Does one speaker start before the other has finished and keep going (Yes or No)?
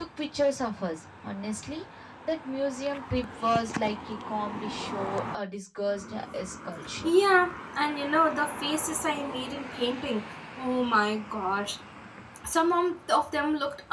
No